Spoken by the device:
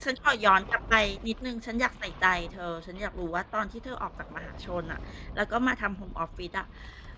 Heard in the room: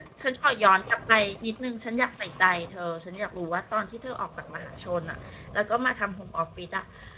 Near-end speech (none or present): none